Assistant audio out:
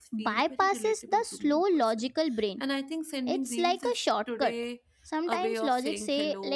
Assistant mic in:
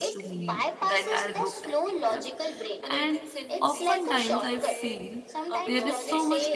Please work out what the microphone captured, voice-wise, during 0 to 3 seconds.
both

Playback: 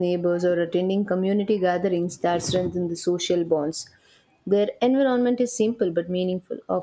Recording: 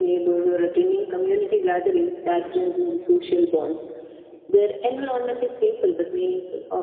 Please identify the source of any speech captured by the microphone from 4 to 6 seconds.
echo only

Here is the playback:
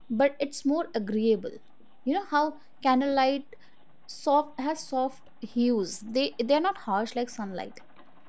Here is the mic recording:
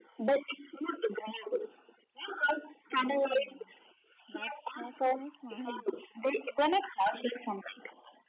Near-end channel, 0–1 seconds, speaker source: echo only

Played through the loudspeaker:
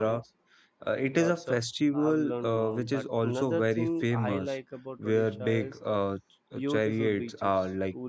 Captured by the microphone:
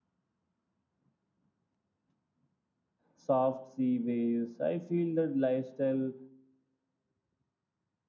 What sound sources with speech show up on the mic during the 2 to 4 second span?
user only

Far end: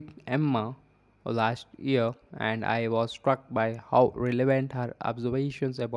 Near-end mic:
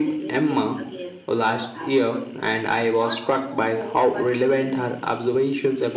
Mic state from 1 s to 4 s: both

